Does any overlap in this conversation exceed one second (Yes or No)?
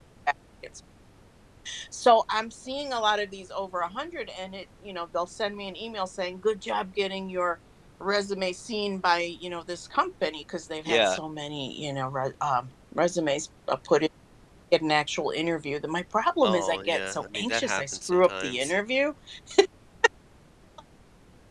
Yes